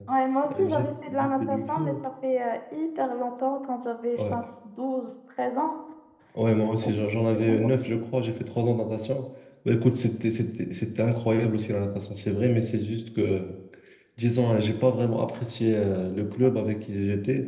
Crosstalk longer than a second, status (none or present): present